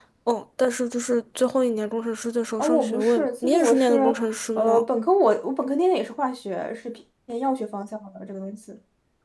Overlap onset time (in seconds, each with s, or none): 2.6 s